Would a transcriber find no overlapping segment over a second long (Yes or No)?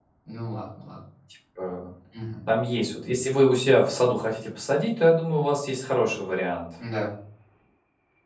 Yes